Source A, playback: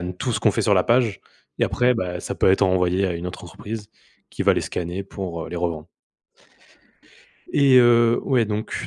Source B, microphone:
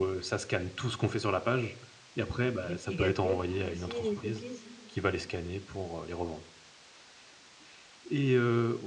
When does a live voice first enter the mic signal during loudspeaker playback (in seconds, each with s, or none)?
2.7 s